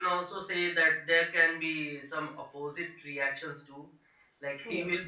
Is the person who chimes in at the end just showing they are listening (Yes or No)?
Yes